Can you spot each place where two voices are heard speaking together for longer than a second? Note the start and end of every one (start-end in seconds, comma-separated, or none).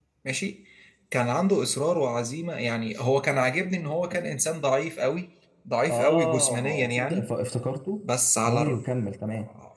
5.9-7.3